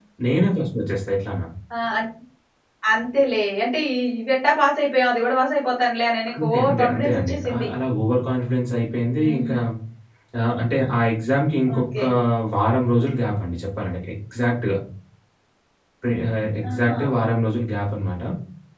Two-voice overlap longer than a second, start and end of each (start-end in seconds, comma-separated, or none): 6.4-7.7